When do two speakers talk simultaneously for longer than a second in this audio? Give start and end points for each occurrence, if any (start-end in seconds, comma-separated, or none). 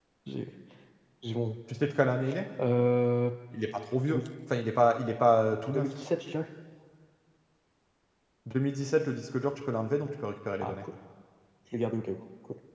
none